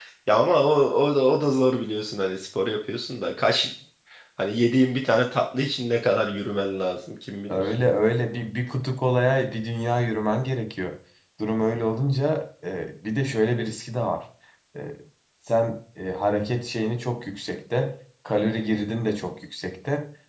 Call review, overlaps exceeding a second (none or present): none